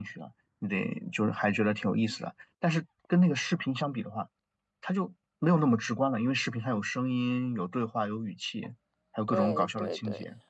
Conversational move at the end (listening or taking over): taking over